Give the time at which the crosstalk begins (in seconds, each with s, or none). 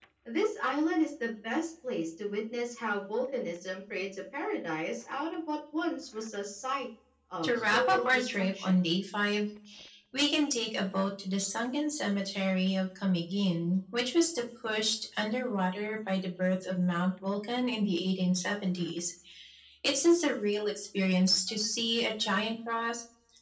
7.4 s